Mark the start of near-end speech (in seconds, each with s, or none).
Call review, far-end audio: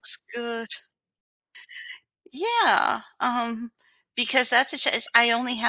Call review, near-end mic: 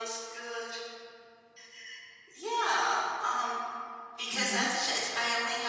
4.3 s